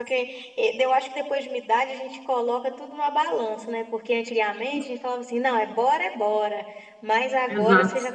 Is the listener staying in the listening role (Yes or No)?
Yes